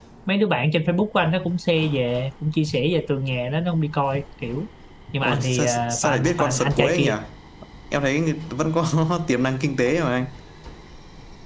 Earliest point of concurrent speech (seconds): 5.2 s

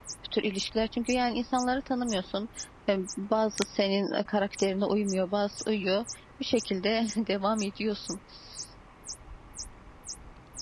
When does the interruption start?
none

